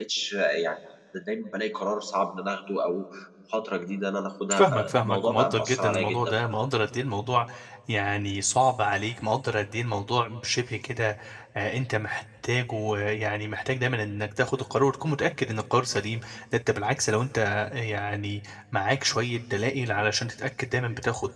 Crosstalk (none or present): present